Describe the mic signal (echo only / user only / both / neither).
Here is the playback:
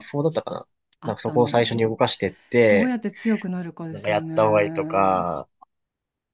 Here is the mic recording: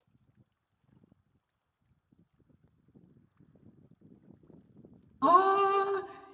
user only